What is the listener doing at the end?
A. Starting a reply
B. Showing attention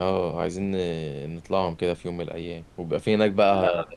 B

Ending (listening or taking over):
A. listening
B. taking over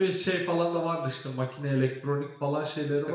B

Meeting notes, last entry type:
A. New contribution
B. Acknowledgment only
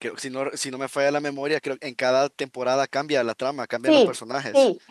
A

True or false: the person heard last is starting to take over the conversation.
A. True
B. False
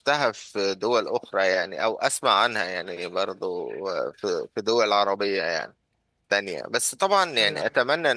B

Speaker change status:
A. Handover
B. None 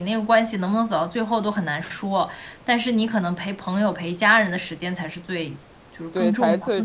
A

